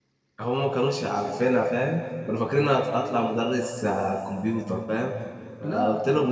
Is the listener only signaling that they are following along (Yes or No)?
Yes